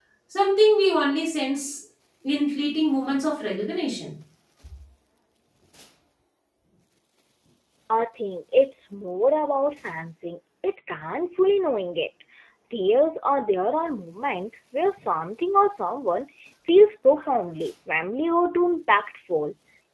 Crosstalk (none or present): none